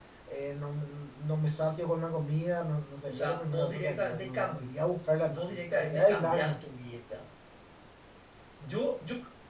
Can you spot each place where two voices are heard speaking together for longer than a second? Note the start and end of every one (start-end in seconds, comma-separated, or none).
3.1-4.5, 5.3-6.6